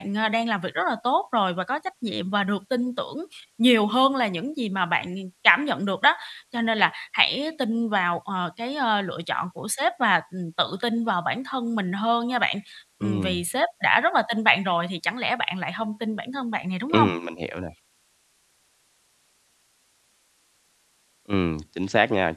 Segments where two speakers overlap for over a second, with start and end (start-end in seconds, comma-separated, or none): none